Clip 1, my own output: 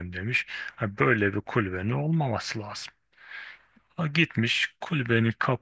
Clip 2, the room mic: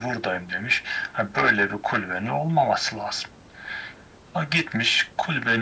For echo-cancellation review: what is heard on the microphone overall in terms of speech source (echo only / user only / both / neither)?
echo only